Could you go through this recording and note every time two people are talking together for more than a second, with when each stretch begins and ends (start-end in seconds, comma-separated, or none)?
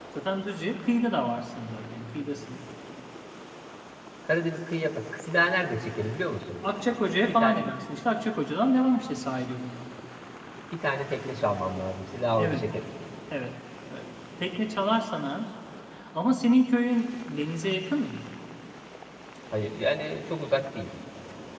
none